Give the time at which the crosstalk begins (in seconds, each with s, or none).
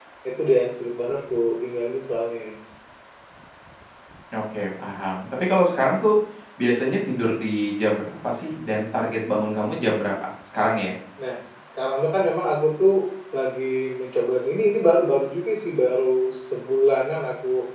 none